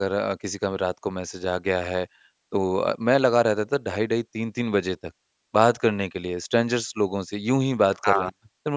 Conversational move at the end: listening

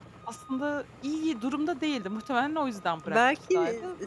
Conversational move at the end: taking over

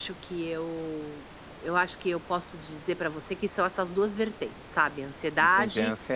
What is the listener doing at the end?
taking over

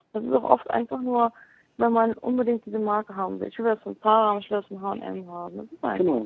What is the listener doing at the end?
taking over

